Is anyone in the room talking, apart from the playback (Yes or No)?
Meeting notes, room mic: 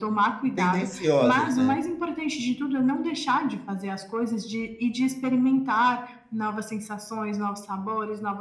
Yes